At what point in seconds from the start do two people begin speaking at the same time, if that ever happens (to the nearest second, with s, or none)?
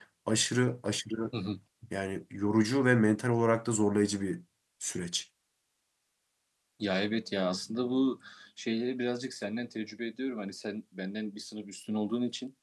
none